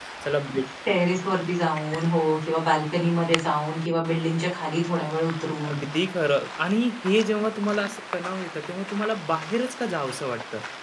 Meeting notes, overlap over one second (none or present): none